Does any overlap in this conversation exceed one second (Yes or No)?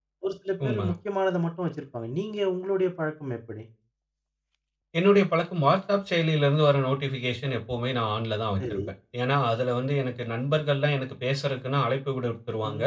No